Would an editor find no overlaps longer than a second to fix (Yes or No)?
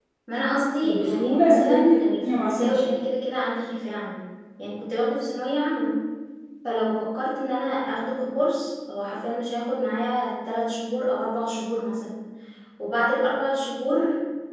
No